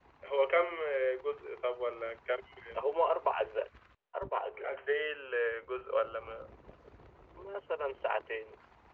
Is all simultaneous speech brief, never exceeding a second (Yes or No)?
Yes